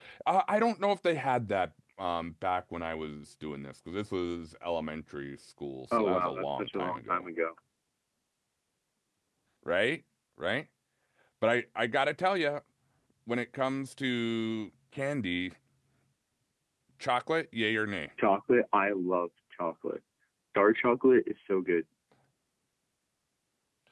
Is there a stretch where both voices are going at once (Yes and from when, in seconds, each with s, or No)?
Yes, from 5.9 s